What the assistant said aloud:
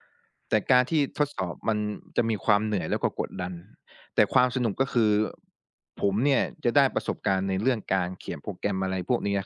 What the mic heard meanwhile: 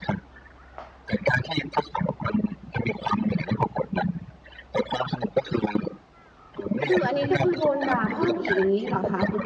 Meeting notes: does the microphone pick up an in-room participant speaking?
Yes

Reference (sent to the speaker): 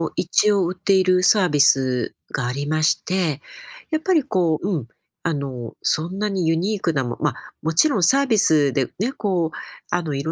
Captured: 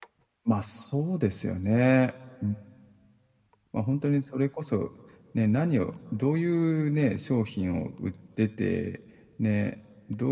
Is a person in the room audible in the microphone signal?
Yes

